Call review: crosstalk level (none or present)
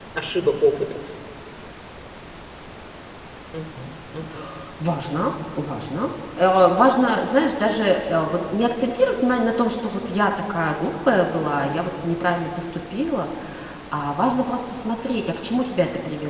none